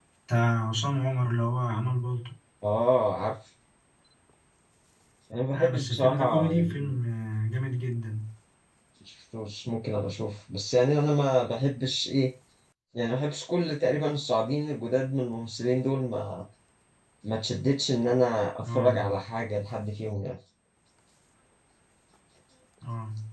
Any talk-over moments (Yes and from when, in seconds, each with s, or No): Yes, from 5.5 s